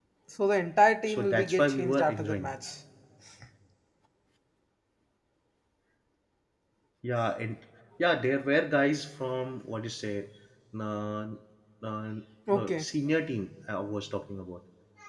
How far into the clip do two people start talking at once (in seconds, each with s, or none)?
1.1 s